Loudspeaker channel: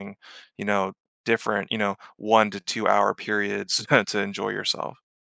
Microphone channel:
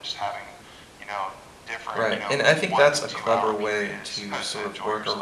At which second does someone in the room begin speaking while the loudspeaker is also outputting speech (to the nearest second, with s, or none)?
2 s